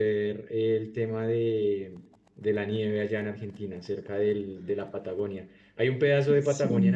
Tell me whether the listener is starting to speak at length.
No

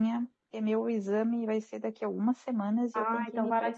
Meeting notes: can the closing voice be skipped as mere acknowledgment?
No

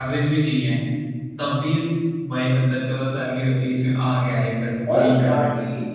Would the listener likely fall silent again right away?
No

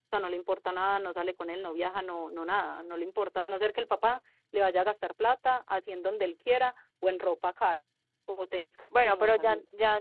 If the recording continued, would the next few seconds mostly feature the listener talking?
Yes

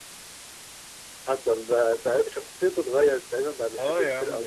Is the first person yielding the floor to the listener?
Yes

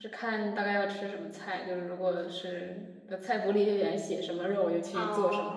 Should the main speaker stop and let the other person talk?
Yes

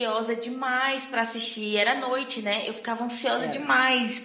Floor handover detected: No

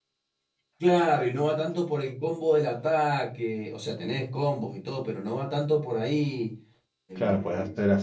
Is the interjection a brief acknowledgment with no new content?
No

